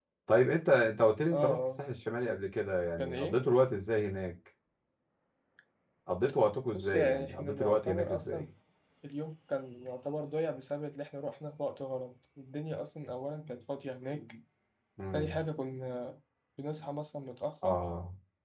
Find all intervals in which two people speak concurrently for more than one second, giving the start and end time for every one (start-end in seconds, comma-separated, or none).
6.7-8.5